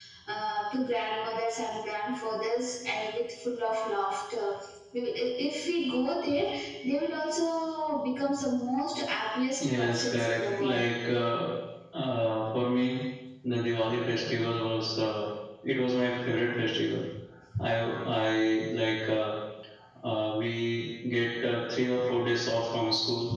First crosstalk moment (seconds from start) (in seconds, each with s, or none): 9.5 s